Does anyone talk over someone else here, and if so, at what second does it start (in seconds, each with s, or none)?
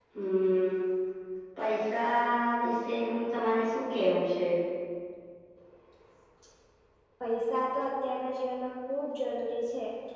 none